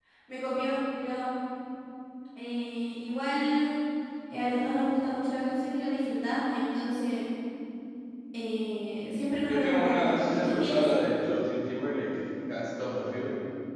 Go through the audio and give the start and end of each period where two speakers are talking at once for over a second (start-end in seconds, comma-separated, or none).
9.4-10.9